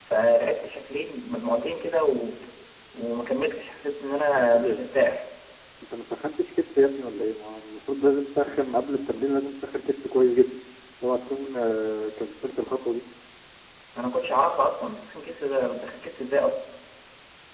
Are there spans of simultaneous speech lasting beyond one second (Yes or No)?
No